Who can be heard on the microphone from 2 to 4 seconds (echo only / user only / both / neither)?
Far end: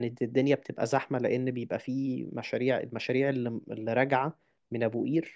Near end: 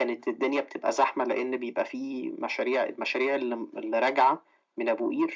echo only